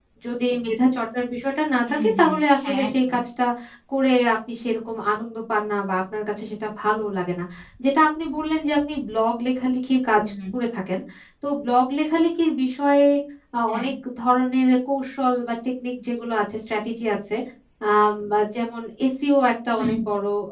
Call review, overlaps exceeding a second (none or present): present